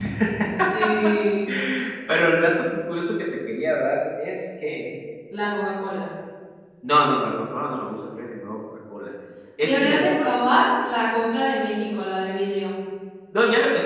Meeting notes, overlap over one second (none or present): none